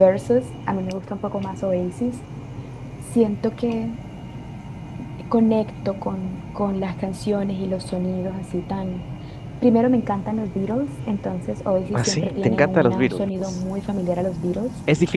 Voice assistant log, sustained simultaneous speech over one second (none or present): present